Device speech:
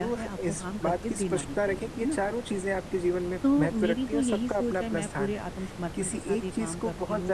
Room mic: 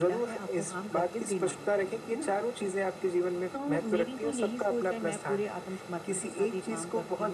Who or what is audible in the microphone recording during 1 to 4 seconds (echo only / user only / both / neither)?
echo only